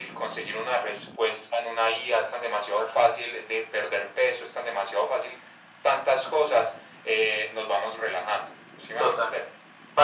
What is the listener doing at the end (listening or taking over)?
taking over